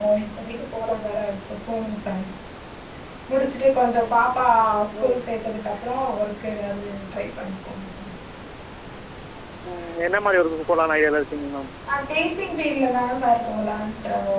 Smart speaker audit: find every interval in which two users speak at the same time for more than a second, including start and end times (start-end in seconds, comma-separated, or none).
none